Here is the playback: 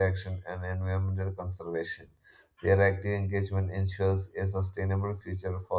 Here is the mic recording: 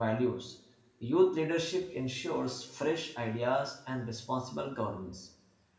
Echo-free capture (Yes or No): Yes